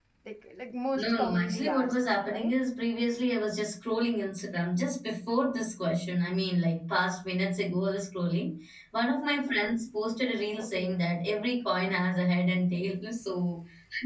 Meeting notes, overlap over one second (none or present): present